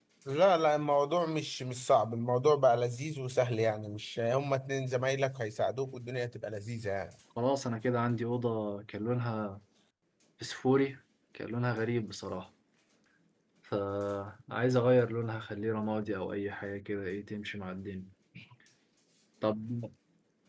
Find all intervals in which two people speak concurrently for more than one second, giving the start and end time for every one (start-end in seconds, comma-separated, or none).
none